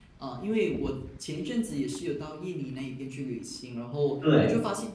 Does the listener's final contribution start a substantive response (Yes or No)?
No